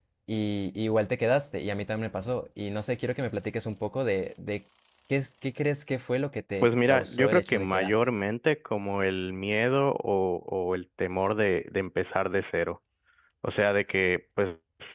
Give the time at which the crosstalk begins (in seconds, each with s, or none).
6.6 s